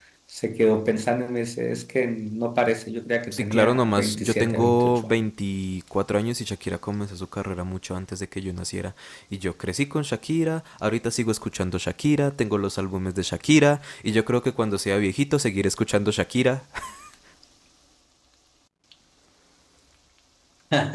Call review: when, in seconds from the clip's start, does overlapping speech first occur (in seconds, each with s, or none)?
3.3 s